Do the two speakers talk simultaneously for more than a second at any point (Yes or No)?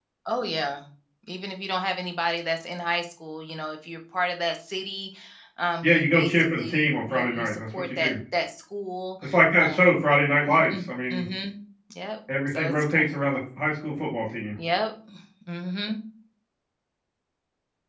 Yes